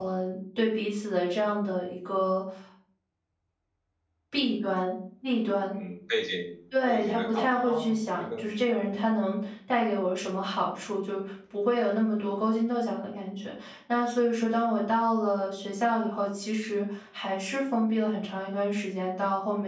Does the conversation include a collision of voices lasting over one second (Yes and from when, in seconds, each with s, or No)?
Yes, from 6.7 s